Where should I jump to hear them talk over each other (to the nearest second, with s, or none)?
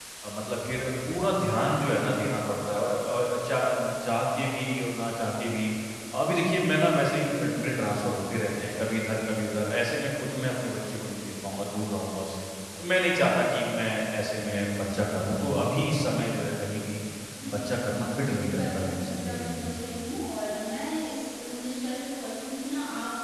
18 s